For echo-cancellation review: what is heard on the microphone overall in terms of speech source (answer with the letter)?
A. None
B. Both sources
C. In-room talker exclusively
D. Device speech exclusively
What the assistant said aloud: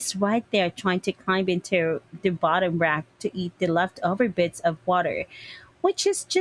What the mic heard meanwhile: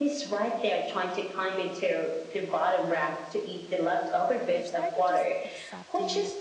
B